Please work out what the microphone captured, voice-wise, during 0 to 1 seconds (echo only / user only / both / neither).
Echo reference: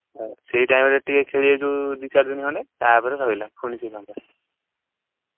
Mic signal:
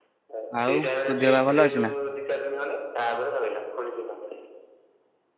both